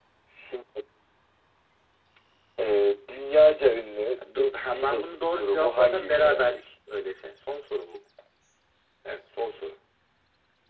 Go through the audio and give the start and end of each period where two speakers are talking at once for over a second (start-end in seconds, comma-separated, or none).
4.3-6.6